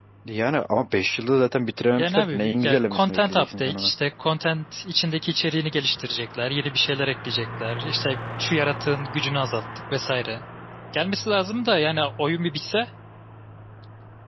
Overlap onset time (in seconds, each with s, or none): 2.0 s